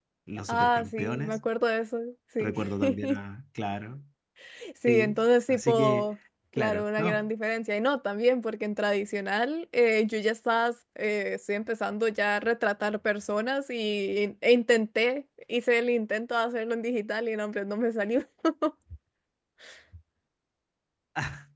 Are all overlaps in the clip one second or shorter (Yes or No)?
No